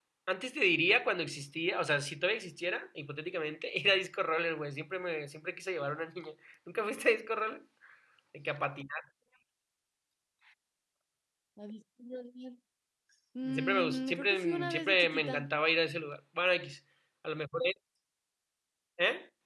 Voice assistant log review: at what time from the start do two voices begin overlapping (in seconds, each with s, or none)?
13.5 s